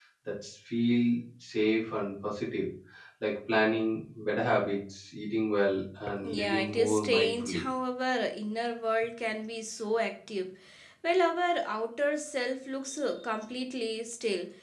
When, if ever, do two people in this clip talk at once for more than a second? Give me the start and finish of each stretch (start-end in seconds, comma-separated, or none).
6.3-7.7